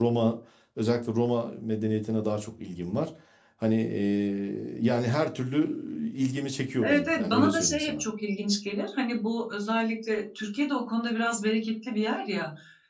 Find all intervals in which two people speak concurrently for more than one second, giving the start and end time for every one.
6.8-8.0

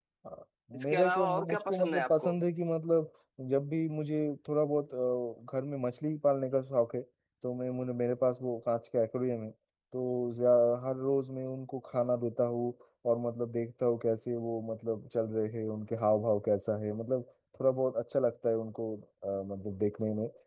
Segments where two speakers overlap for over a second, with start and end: 0.8-2.4

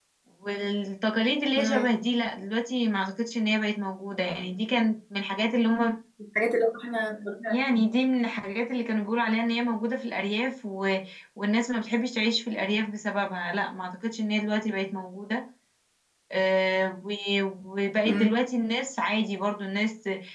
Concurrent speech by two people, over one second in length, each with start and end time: none

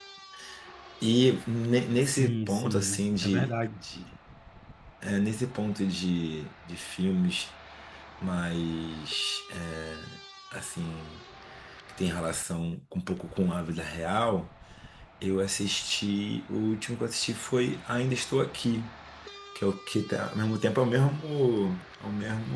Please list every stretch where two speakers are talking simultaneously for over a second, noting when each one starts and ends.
2.0-3.5

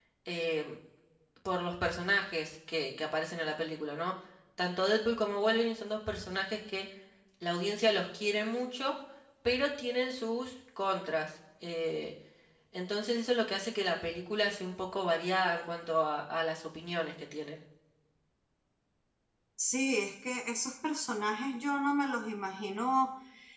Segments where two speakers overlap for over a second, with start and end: none

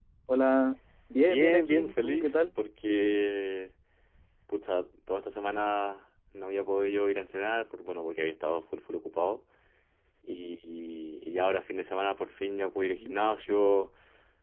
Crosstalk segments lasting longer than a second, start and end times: 1.2-2.5

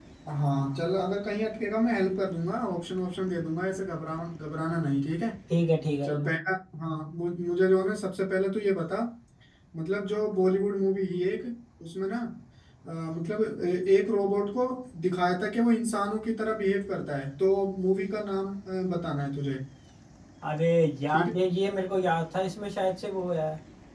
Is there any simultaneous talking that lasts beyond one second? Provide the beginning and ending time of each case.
none

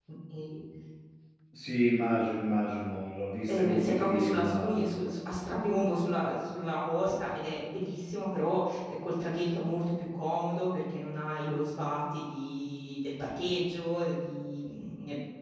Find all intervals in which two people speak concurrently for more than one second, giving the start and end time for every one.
3.5-4.9

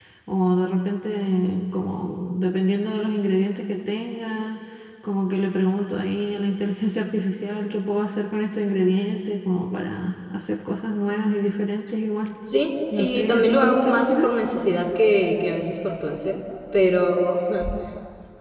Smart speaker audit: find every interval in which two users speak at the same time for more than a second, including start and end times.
12.9-14.3

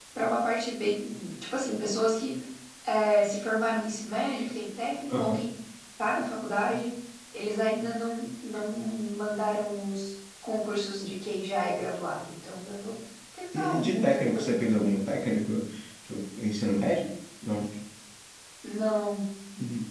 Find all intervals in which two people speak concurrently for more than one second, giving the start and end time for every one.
13.5-15.0

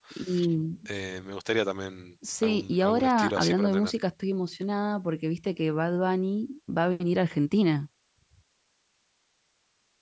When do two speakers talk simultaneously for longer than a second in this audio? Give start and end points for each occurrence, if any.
2.4-3.9

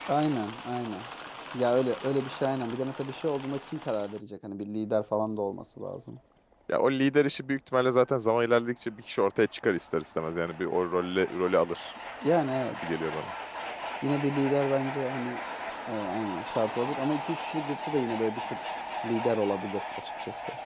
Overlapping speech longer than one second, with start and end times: none

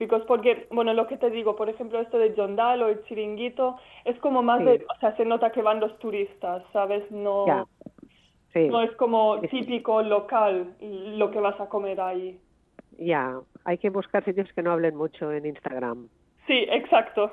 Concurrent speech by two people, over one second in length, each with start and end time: none

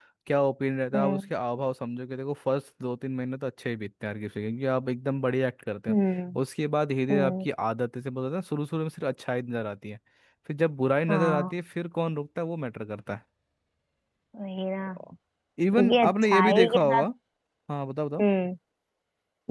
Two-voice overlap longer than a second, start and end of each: 15.7-17.0

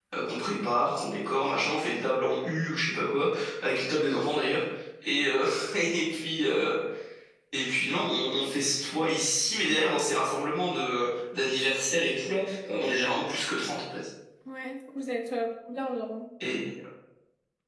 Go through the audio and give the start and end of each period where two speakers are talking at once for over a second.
none

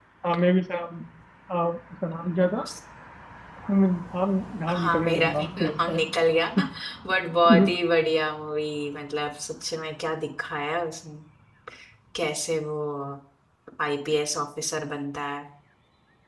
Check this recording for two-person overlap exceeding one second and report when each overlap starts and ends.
4.7-6.0

